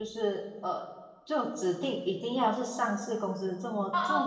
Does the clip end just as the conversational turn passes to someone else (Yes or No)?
Yes